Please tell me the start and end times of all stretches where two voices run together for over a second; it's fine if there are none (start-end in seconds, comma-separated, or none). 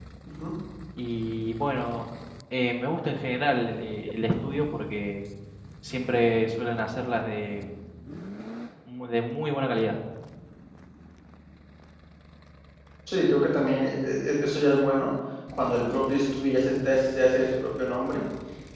none